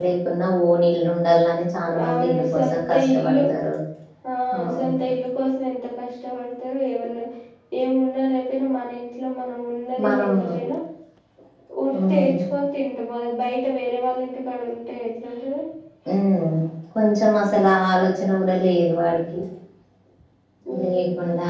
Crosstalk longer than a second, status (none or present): present